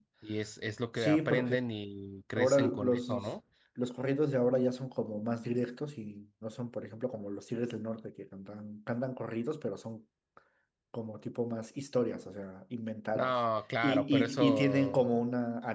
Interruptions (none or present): present